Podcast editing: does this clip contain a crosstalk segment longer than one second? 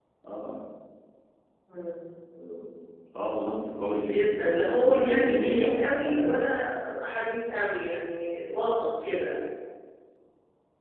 Yes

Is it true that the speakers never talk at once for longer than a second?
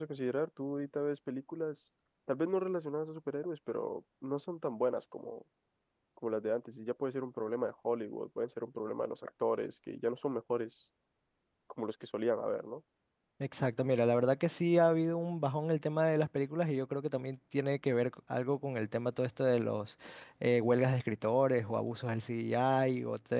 Yes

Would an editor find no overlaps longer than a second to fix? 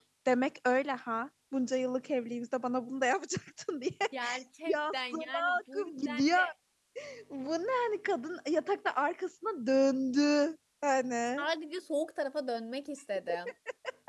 No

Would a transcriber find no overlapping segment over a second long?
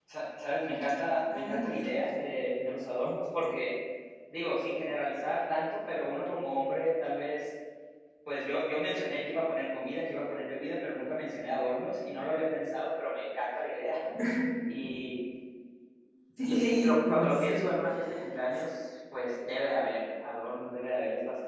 No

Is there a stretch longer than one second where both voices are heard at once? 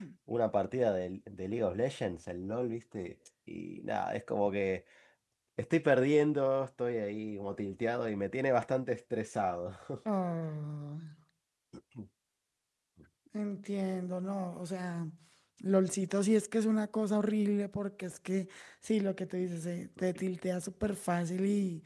No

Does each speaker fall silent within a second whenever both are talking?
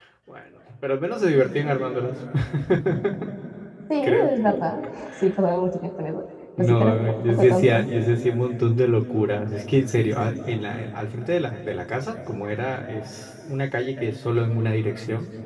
No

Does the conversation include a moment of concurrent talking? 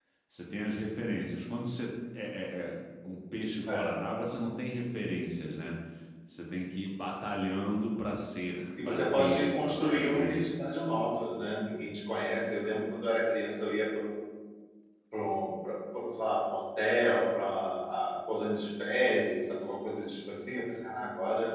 Yes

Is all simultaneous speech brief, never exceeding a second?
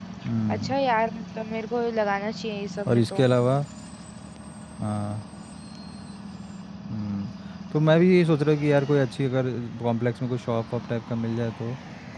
Yes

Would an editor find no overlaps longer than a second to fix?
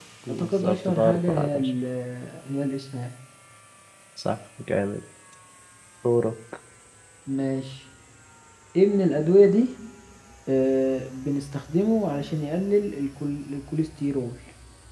No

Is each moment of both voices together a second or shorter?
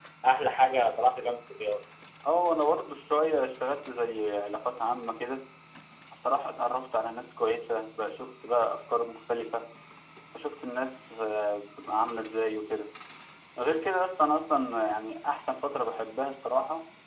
Yes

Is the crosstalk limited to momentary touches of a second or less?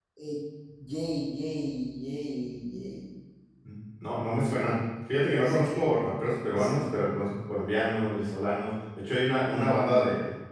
Yes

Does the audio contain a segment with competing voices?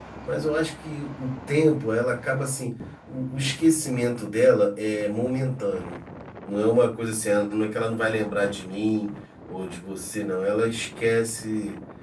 No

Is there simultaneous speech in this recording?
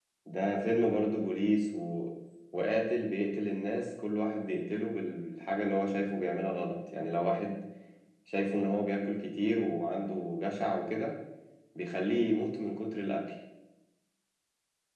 No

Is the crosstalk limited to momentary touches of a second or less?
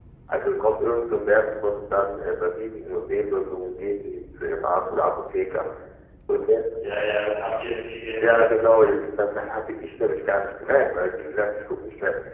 Yes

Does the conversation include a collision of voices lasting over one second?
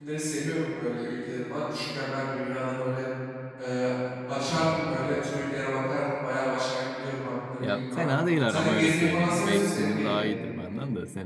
Yes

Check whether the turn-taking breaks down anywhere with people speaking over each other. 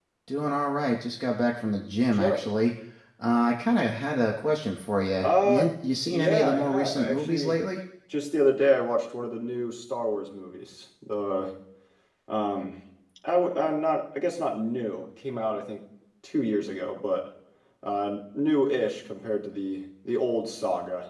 Yes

